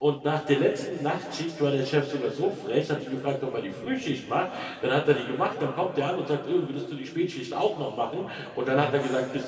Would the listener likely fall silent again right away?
Yes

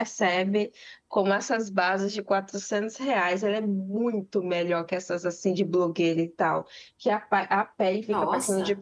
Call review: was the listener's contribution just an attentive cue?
Yes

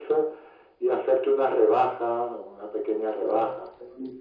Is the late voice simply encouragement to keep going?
No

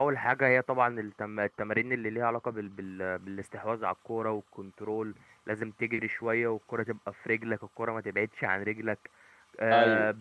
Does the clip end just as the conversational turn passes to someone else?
No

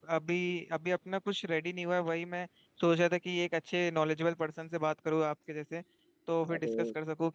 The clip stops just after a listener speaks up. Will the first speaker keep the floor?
Yes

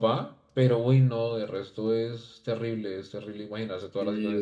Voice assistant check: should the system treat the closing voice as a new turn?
Yes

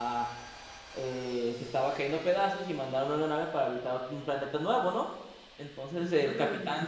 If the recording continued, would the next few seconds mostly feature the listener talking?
No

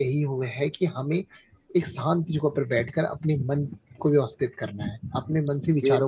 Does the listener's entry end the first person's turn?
No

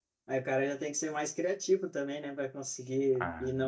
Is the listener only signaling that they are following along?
Yes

